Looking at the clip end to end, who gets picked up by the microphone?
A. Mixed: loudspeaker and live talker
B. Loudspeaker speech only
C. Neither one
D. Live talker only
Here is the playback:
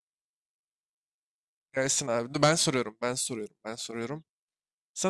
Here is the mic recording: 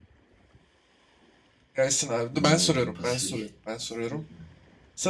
A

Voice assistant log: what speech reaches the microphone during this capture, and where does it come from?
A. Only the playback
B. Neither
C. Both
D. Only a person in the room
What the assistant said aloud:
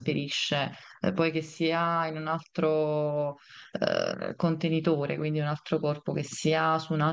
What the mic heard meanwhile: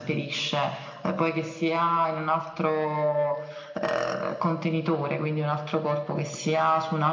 A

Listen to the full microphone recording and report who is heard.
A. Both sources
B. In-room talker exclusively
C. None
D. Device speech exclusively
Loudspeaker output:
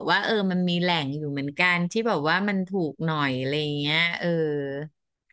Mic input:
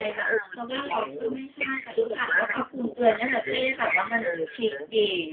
A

